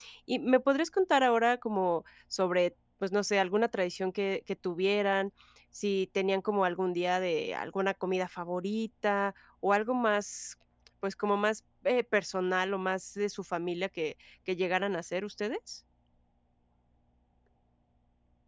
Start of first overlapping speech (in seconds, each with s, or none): none